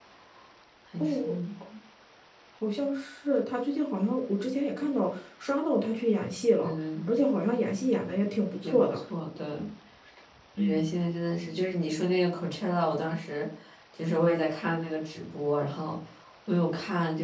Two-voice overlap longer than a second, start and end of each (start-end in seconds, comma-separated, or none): none